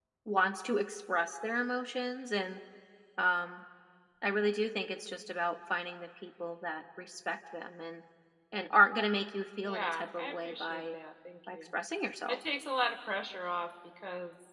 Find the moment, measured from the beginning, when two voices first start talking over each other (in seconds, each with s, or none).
9.6 s